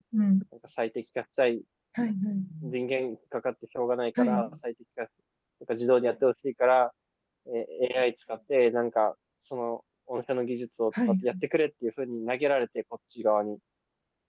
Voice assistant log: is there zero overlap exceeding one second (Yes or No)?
Yes